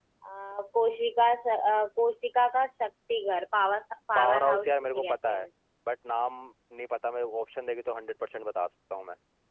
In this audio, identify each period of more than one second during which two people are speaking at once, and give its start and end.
4.2-5.5

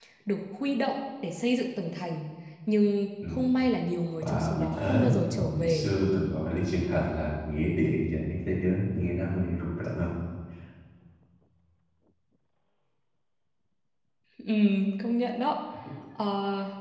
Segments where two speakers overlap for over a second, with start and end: 4.2-5.9

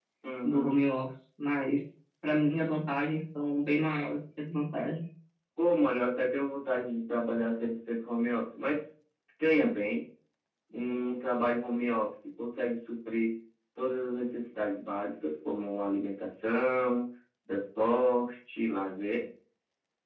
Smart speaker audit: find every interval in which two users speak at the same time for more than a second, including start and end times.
none

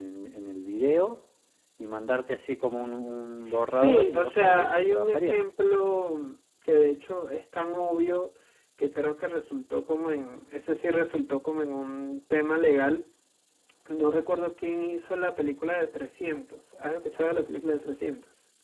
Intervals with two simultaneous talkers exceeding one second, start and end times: 3.5-5.4

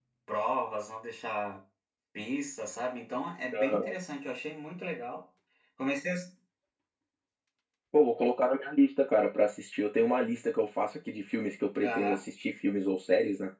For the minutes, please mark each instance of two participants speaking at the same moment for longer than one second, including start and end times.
none

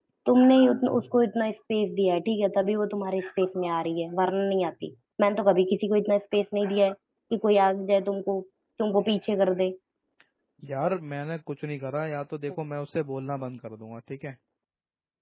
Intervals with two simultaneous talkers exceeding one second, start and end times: none

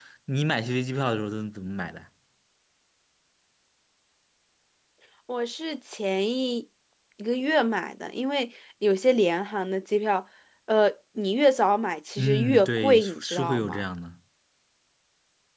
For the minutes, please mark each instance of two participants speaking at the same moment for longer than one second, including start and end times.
12.2-13.8

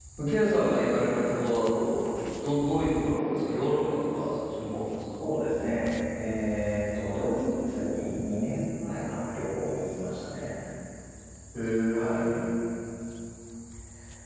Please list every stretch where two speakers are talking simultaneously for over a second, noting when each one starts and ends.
none

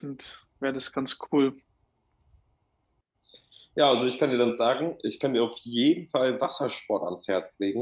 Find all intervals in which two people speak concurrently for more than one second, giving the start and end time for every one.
none

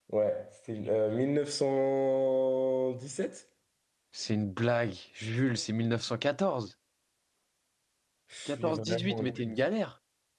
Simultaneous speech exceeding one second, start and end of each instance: 8.4-9.6

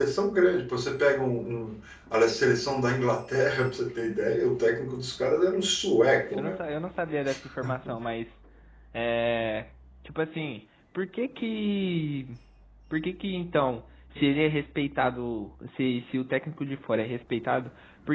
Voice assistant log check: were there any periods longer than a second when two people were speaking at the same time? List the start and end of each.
none

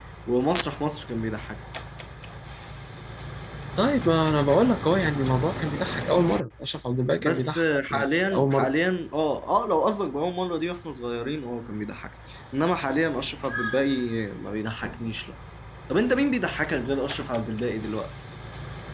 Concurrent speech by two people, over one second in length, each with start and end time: 7.2-8.7

